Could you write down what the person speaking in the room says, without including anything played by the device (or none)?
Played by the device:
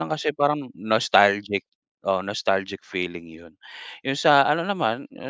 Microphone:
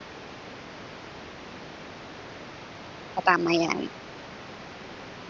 Oh, tama yan.